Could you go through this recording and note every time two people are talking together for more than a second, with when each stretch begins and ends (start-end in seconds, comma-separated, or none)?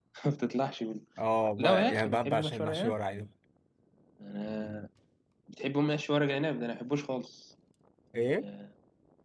1.6-2.9